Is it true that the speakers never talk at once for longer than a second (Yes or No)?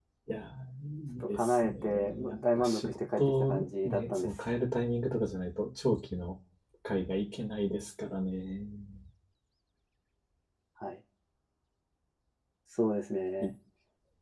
No